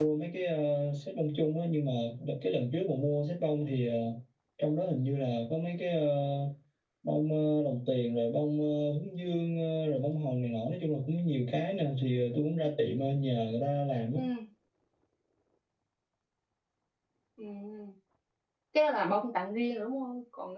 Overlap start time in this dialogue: none

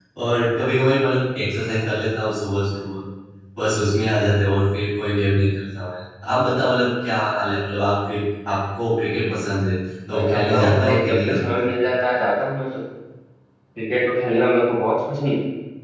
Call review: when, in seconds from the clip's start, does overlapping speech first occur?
10 s

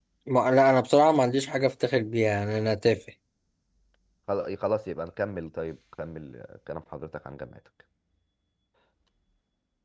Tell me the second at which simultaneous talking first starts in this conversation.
none

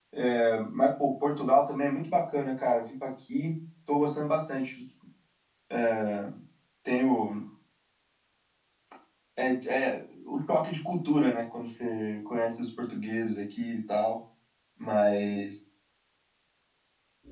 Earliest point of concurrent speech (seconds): none

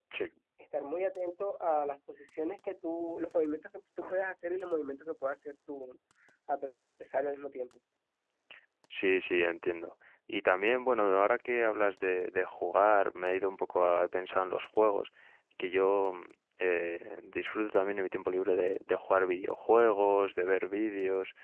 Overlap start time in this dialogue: none

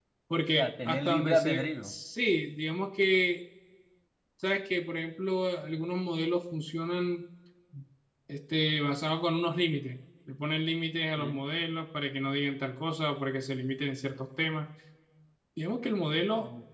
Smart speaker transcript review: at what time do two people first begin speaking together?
1 s

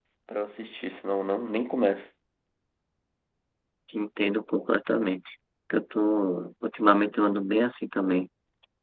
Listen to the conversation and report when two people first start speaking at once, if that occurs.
none

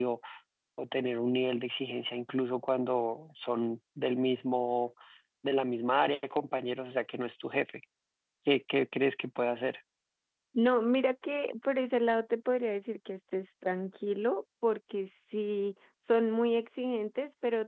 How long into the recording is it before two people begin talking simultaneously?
none

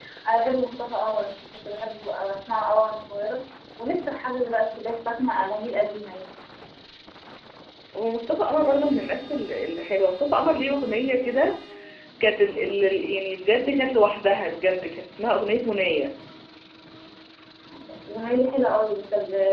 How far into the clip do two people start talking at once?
none

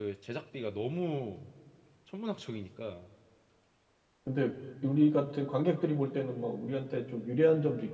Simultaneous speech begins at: none

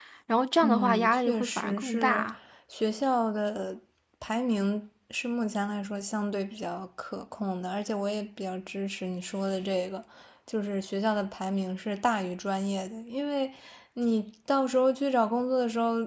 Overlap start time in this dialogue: 1 s

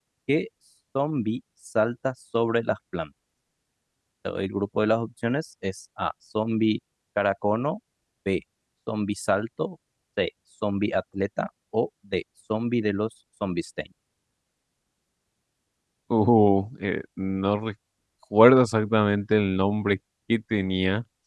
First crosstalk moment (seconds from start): none

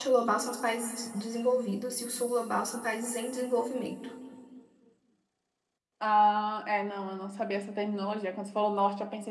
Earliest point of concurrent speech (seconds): none

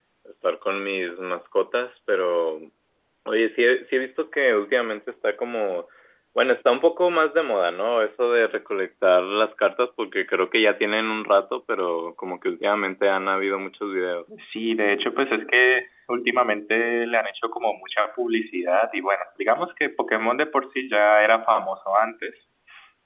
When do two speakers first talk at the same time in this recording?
none

